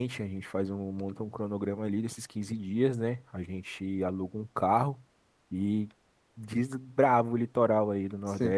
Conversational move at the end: taking over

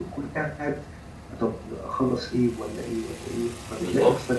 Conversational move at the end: listening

